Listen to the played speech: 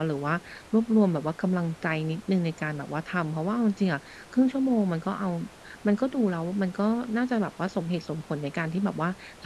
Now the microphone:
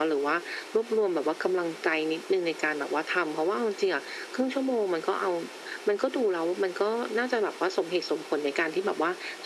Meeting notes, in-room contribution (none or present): none